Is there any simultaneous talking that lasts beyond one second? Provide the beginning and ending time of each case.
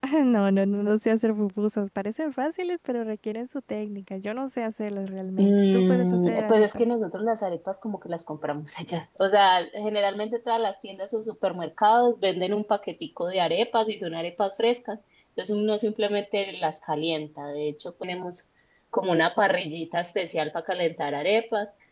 5.4-6.8

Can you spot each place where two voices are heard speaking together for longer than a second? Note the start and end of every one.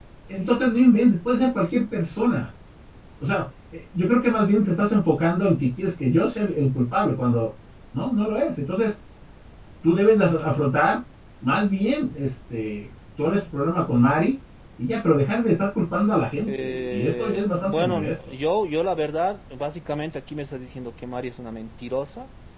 16.5-18.2

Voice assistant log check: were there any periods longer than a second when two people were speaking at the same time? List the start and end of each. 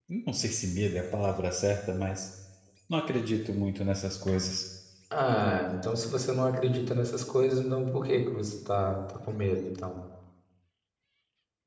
none

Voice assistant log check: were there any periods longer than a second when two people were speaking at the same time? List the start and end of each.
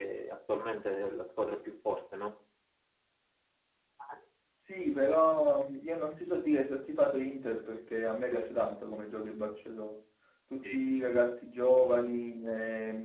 none

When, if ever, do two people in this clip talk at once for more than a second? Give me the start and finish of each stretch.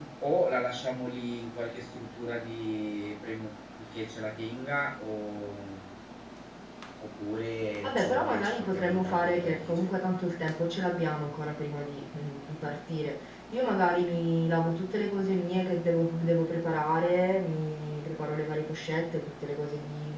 7.8-9.9

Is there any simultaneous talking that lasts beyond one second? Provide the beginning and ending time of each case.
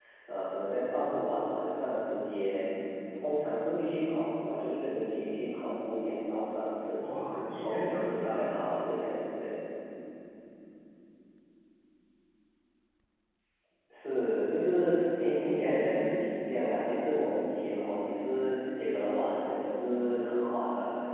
7.0-8.5

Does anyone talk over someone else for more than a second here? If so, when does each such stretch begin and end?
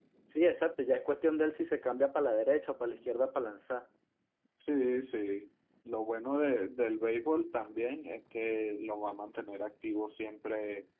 none

